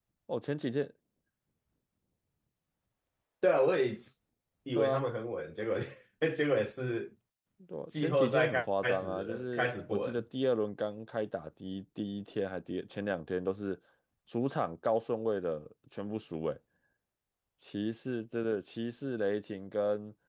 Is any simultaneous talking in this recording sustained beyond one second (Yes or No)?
Yes